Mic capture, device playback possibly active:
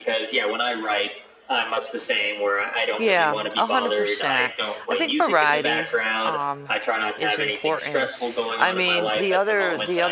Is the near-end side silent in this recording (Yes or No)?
No